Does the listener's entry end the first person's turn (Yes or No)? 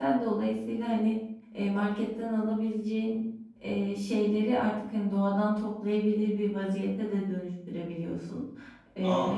Yes